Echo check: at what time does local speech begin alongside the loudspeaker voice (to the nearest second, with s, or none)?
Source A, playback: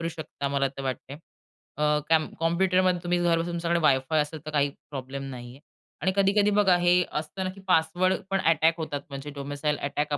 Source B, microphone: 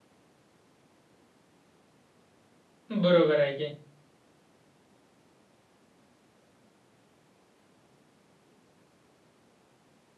3 s